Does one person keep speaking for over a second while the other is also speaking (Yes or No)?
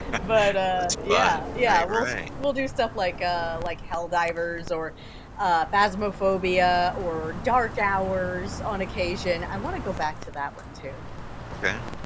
Yes